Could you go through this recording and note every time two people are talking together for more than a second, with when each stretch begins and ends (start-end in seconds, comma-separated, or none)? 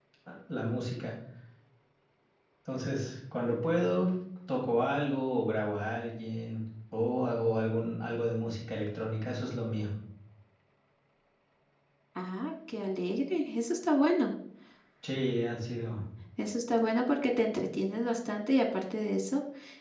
none